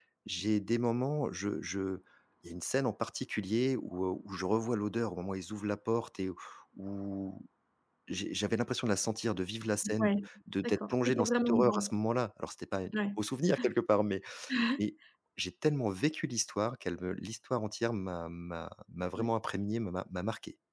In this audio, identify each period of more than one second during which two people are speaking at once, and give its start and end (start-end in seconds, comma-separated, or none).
10.6-11.9